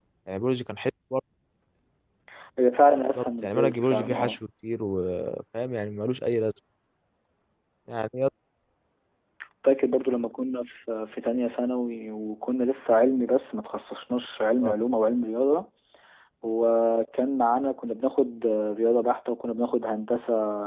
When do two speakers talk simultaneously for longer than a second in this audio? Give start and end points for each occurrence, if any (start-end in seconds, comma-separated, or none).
3.1-4.4